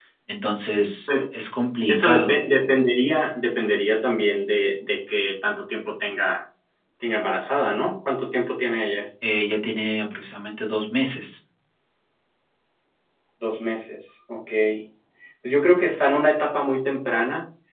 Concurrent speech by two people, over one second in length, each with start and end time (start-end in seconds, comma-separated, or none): none